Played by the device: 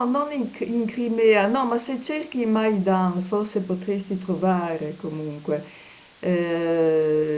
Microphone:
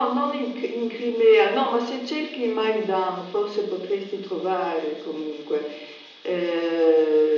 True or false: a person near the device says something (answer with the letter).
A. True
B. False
B